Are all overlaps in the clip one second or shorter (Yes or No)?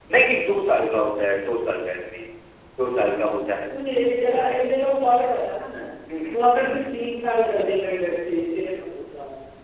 Yes